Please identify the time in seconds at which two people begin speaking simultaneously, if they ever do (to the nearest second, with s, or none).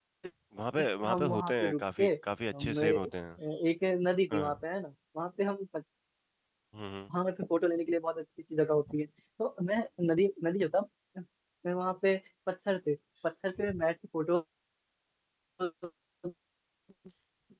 1 s